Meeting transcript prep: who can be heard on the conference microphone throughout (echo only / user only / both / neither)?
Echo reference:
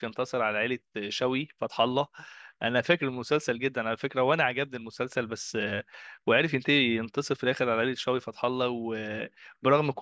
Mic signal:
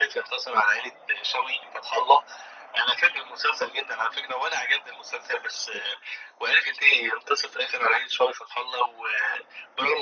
echo only